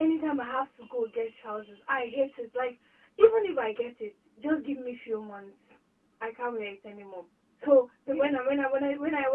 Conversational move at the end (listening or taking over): listening